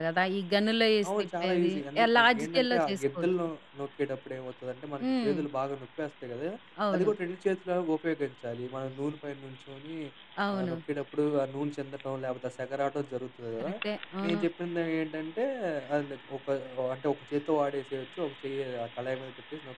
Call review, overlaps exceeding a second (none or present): present